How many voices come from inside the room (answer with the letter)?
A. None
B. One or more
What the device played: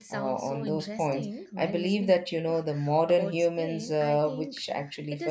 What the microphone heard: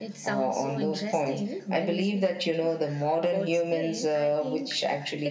A